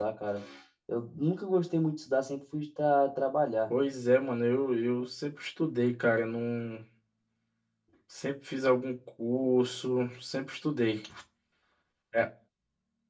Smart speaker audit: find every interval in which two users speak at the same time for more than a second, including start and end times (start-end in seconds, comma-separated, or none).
none